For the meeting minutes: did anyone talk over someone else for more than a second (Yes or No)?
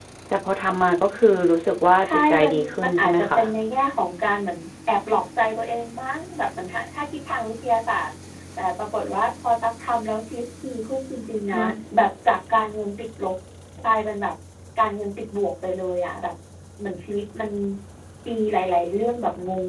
Yes